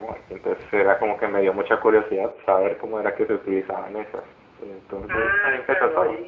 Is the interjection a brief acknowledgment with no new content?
No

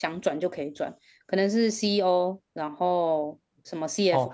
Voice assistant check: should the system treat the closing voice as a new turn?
Yes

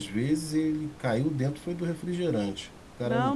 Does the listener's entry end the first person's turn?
Yes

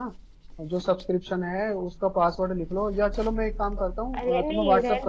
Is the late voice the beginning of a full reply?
Yes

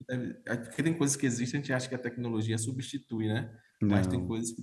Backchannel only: Yes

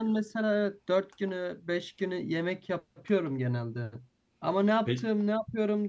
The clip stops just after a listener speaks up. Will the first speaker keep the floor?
Yes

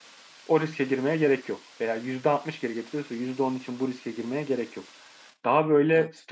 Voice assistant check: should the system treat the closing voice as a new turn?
No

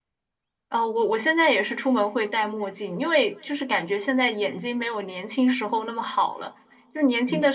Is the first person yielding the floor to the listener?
No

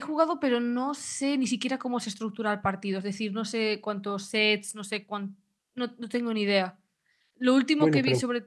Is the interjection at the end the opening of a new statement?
No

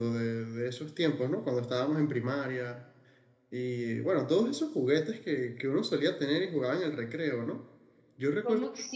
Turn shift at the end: Yes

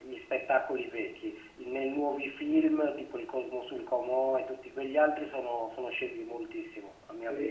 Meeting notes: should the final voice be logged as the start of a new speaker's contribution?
Yes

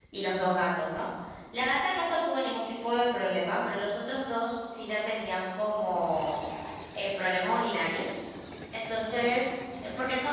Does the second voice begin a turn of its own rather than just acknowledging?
No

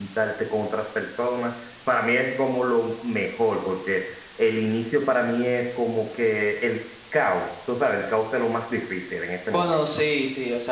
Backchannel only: No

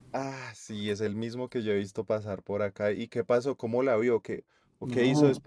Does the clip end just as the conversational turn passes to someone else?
Yes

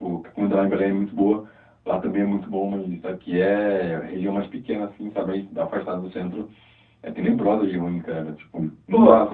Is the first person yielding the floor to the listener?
Yes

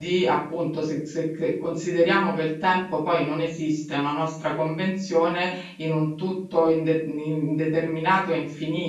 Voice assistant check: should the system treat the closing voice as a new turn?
Yes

